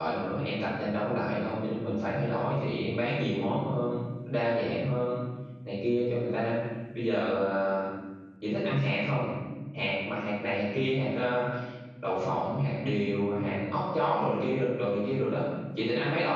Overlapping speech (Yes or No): No